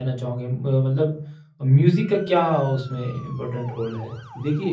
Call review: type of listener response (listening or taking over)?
taking over